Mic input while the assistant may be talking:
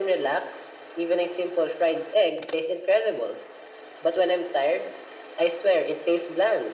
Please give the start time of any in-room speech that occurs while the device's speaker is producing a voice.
none

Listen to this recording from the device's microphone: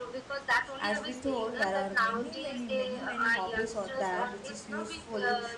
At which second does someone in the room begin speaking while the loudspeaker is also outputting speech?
0.8 s

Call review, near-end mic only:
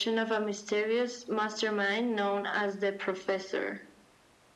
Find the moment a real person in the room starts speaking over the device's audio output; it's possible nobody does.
none

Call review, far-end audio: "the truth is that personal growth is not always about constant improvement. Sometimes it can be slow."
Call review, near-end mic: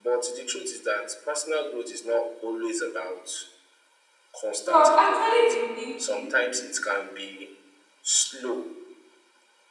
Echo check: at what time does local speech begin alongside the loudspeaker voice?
4.6 s

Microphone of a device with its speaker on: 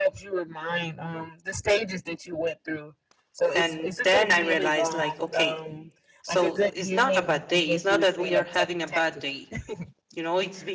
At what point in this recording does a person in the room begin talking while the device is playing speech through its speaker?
3.5 s

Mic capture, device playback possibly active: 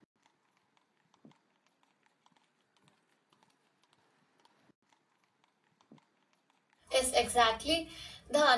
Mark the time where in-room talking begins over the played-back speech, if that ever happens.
6.9 s

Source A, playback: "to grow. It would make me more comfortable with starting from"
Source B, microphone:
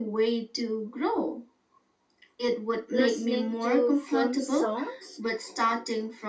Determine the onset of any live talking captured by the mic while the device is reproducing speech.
2.9 s

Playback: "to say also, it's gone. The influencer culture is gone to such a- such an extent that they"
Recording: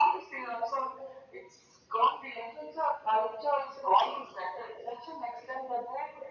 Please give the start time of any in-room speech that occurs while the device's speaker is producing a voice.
none

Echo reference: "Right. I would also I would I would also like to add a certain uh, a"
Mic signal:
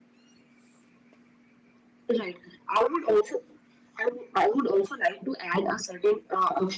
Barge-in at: none

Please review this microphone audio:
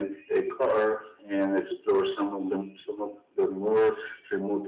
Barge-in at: none

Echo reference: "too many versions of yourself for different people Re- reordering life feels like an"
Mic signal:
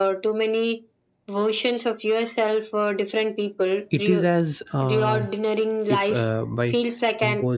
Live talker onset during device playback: 3.9 s

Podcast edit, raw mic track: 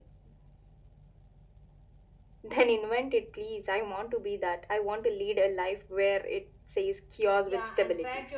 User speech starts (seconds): 7.4 s

